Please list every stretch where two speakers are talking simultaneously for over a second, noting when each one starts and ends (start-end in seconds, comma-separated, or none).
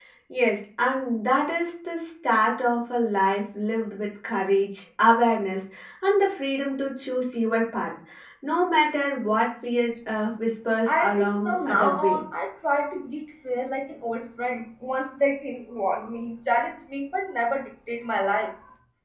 10.9-12.2